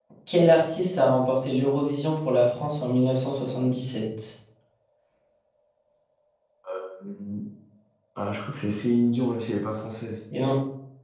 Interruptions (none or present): none